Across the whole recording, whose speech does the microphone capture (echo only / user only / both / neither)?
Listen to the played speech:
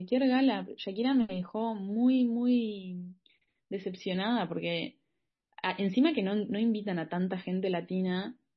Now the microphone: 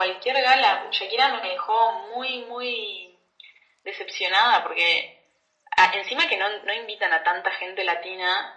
echo only